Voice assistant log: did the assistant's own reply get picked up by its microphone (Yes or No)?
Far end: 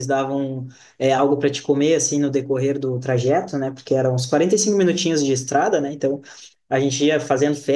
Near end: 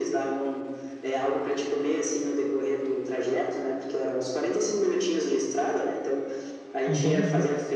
Yes